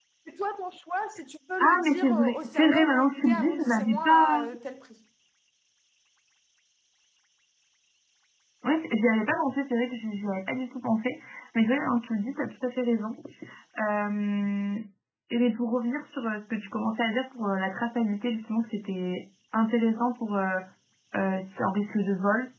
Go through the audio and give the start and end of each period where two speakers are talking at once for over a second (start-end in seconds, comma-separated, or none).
1.6-4.4